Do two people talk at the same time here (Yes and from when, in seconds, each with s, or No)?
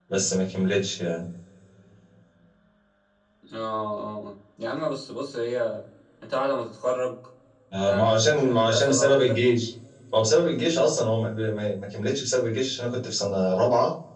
Yes, from 7.9 s